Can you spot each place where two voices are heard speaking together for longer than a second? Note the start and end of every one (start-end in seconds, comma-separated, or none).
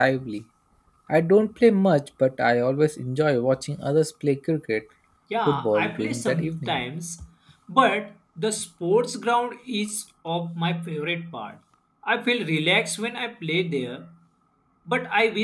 5.5-6.8